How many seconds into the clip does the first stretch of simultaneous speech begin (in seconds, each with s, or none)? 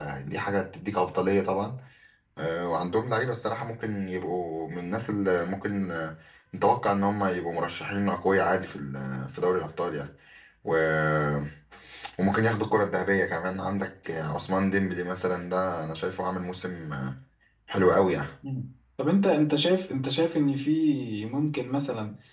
none